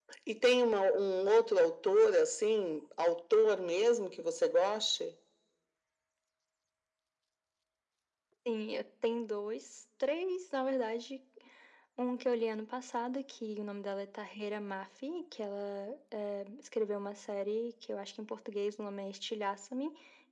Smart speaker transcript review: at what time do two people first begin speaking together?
none

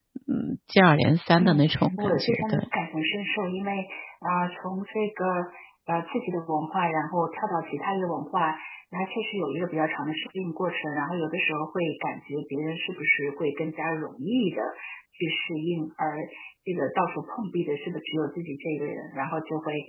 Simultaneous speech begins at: 1.4 s

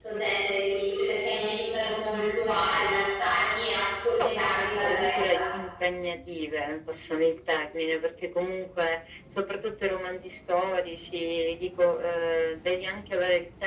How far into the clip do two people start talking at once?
4.2 s

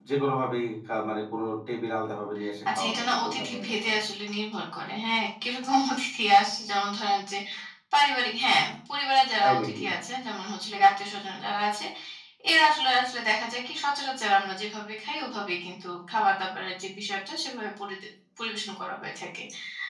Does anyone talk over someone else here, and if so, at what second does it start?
2.8 s

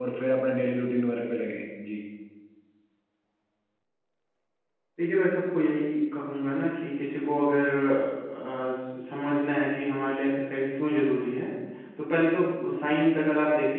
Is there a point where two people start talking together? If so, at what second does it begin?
none

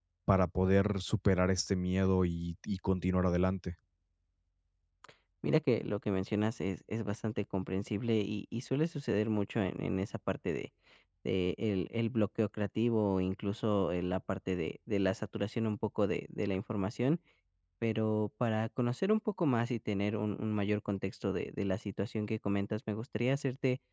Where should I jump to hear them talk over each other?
none

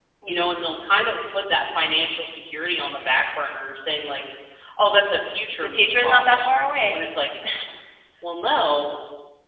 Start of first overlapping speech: 5.6 s

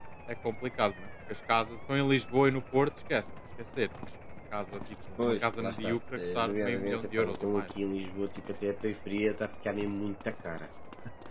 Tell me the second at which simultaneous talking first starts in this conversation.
5.2 s

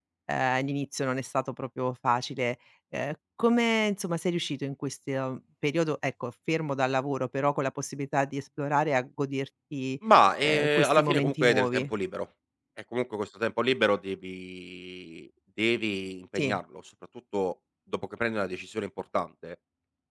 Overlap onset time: 10.4 s

